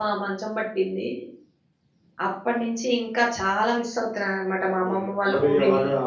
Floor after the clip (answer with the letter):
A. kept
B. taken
B